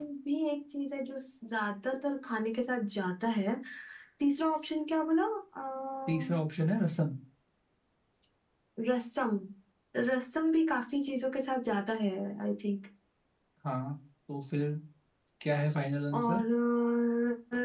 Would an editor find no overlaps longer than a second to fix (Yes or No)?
Yes